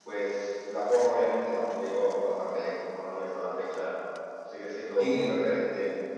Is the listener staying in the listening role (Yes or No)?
Yes